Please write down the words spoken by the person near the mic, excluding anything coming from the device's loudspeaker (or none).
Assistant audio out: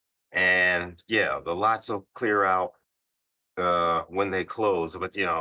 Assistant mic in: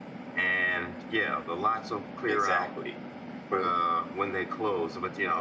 Exactly. But